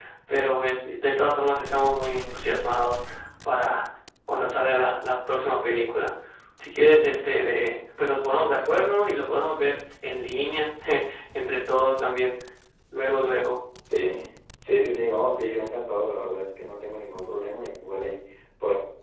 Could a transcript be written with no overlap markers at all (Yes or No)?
Yes